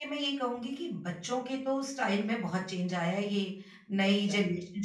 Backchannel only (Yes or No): Yes